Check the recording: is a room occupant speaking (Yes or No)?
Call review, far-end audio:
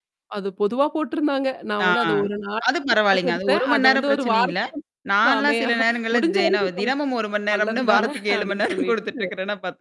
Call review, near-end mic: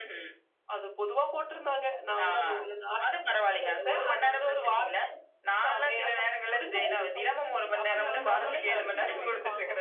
Yes